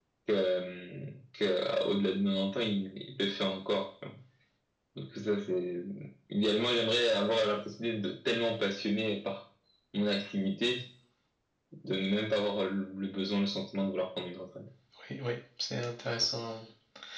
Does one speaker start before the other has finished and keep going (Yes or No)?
No